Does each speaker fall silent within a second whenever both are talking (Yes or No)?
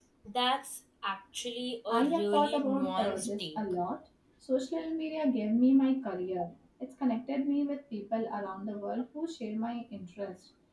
No